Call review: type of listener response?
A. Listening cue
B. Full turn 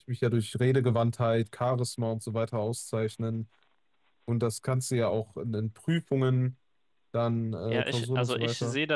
B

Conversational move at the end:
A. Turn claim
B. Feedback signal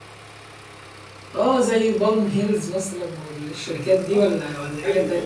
A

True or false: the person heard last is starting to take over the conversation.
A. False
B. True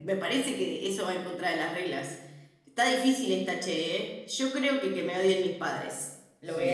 B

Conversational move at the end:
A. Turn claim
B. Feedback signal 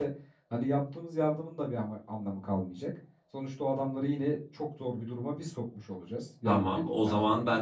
A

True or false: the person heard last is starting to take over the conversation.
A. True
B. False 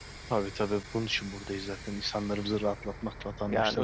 A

